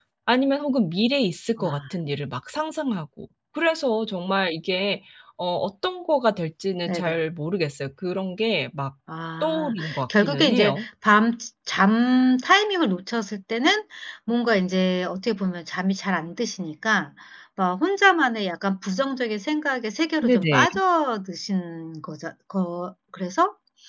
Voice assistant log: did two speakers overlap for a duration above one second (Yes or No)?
Yes